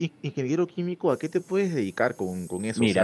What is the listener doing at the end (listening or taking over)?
taking over